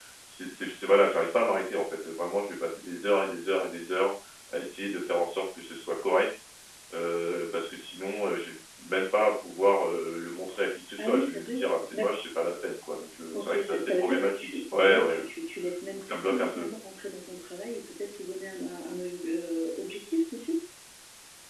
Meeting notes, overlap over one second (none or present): present